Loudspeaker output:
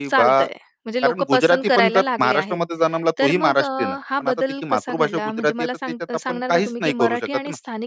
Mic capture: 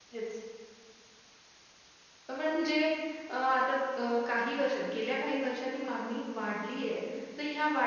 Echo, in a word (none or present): none